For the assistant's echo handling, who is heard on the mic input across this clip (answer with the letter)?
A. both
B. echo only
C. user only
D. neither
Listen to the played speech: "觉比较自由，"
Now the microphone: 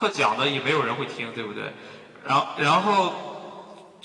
C